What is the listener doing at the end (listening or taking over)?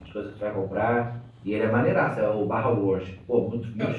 taking over